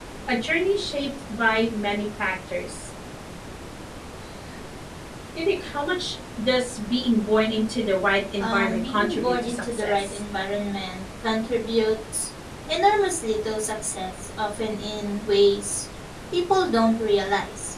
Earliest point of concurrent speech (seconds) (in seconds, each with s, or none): 8.4 s